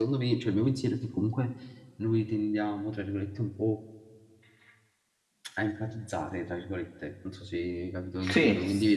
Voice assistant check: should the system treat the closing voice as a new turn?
No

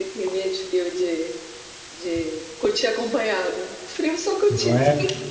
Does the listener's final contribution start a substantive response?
No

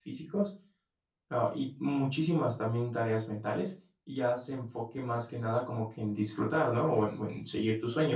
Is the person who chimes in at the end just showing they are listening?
No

